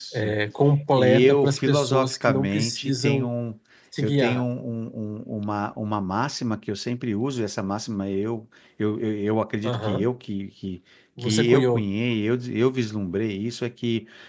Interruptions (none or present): present